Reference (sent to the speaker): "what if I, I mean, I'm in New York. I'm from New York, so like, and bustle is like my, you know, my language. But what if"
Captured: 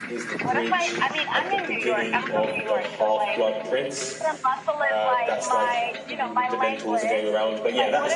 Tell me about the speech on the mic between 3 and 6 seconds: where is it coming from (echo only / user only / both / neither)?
both